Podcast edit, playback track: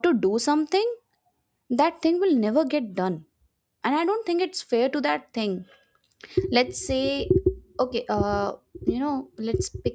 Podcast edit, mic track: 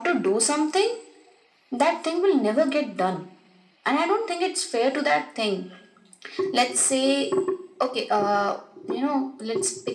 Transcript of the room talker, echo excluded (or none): none